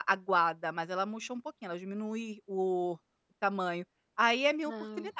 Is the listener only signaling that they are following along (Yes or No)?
Yes